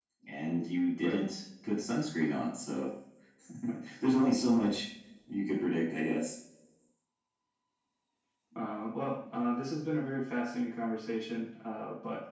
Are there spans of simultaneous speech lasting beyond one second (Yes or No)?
No